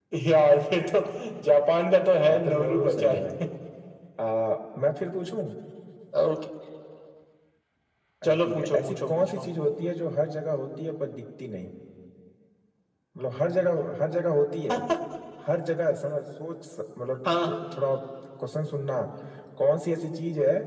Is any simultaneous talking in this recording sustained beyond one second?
Yes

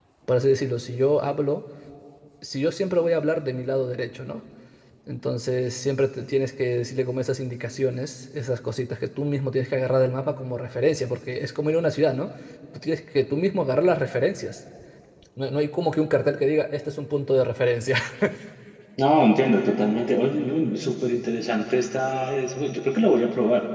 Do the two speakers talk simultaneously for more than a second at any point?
No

